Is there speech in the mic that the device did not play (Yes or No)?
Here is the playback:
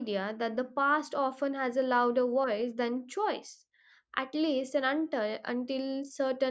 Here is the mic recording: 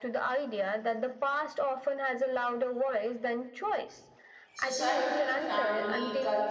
Yes